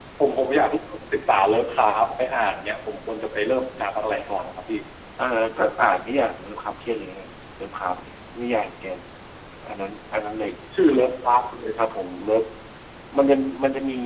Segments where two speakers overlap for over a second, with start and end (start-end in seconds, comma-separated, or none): none